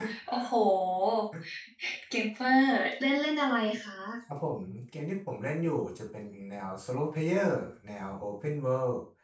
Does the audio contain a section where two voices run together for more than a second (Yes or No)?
No